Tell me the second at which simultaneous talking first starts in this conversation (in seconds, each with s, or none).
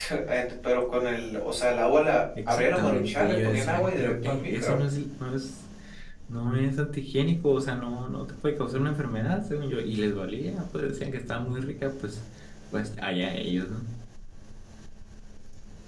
2.4 s